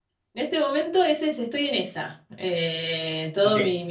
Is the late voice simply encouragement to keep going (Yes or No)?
No